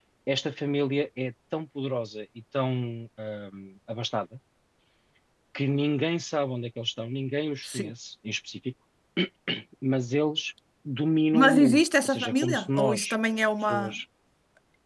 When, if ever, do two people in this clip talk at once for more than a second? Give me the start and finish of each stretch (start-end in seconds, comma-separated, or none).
11.3-13.1